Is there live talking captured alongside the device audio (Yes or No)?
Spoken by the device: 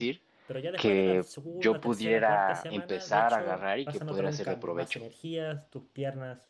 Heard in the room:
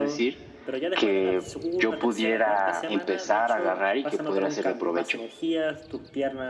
No